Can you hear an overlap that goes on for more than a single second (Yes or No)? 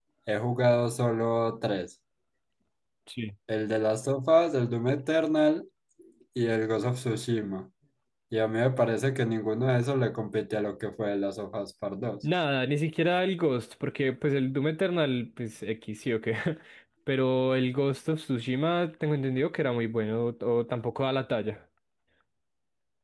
No